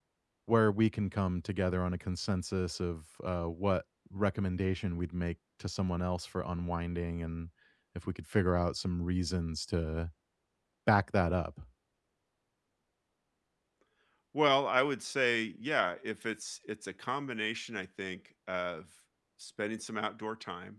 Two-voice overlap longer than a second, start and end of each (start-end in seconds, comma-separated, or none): none